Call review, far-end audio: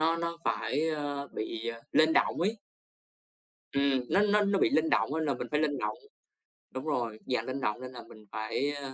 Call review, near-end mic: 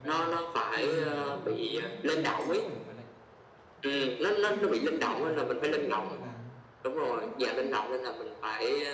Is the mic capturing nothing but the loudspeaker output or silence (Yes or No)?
No